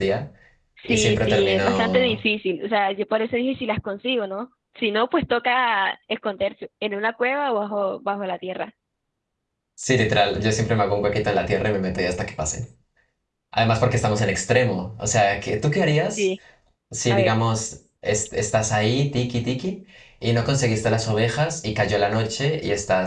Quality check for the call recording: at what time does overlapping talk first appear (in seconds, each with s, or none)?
0.8 s